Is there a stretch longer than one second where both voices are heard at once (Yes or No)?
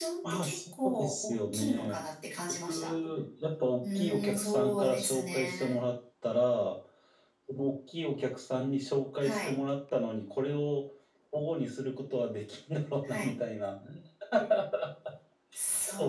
Yes